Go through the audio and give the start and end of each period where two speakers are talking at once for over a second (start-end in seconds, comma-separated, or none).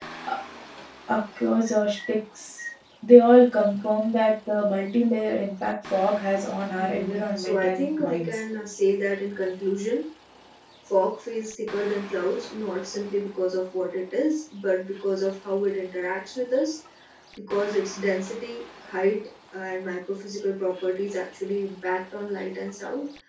6.8-8.4